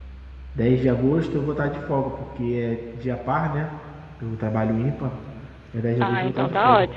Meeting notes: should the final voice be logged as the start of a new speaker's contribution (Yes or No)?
Yes